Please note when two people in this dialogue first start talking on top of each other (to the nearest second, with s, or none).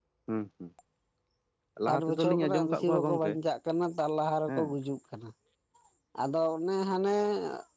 2 s